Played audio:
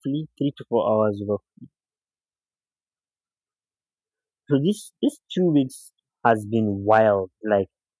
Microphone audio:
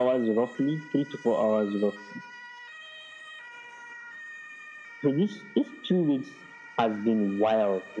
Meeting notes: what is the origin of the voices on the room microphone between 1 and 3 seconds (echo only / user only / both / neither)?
echo only